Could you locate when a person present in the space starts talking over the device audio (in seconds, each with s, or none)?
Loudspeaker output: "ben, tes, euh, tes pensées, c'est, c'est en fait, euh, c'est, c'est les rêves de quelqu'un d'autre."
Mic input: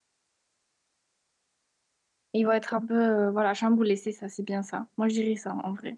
2.3 s